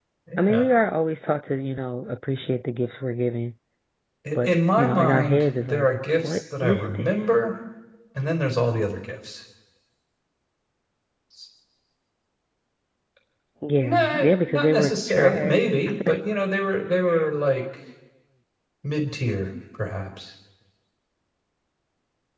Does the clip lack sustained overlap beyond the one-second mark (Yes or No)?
No